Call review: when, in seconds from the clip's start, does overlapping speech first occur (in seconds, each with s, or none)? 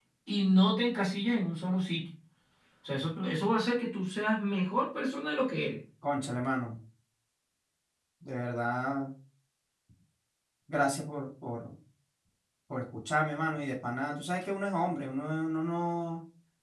none